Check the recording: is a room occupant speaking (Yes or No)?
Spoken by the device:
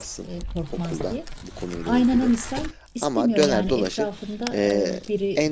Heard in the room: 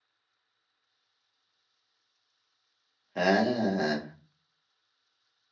Yes